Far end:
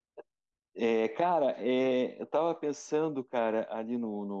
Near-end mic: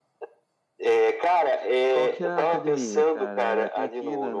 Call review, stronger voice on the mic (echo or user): echo